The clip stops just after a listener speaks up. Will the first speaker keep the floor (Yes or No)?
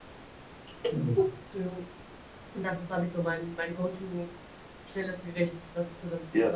No